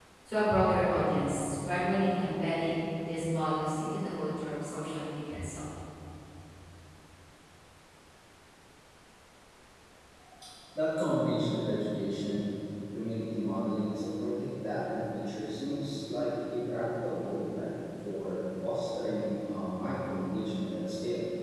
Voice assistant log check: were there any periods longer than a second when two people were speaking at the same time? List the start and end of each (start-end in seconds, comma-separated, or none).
none